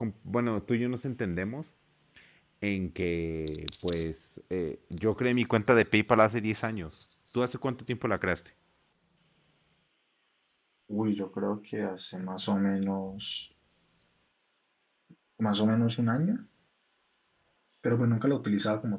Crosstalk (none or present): none